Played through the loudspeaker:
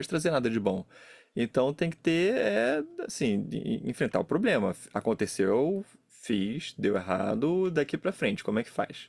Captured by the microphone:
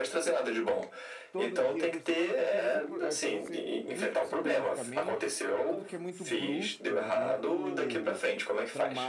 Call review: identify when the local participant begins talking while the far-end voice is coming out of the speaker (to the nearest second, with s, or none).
1 s